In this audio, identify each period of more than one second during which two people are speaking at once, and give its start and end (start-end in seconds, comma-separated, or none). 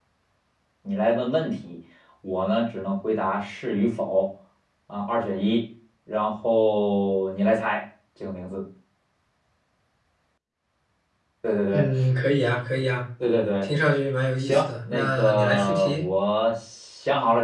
14.4-16.0